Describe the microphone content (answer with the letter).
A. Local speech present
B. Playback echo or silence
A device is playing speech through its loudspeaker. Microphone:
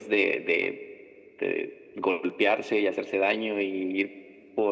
B